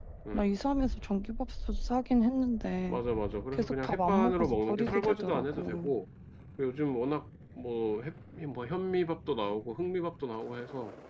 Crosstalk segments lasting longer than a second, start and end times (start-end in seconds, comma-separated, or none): 3.5-5.9